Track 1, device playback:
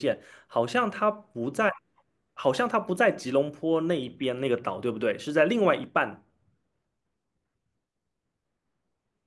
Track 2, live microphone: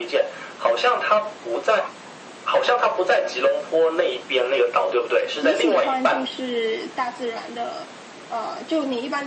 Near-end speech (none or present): present